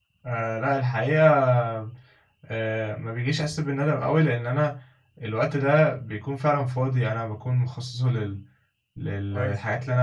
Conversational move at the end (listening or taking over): listening